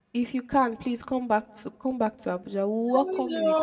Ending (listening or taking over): taking over